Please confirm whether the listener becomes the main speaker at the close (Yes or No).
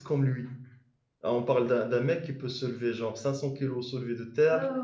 Yes